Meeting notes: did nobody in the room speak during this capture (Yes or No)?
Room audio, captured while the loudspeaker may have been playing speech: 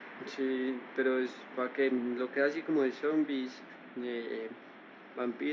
Yes